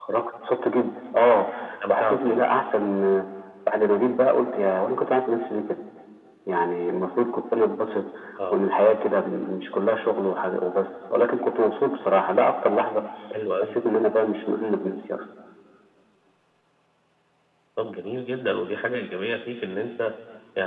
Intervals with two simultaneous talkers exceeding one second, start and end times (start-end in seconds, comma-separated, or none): none